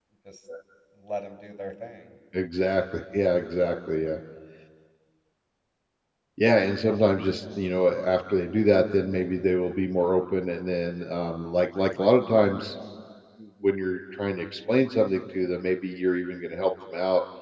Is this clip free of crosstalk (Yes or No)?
Yes